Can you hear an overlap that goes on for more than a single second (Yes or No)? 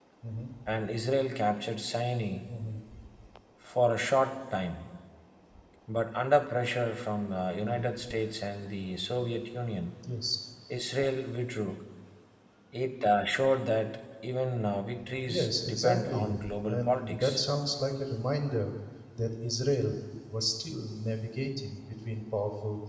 Yes